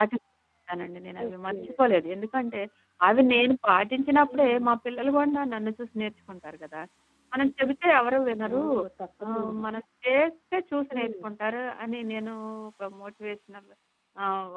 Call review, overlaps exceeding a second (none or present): none